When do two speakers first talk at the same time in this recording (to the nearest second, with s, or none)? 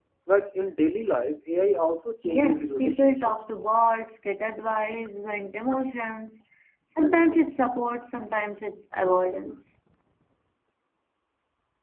2 s